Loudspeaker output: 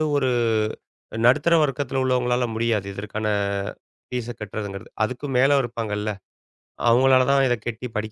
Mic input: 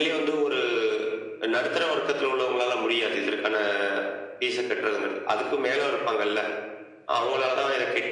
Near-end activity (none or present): none